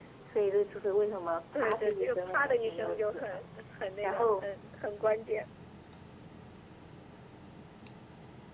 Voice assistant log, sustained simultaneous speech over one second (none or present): present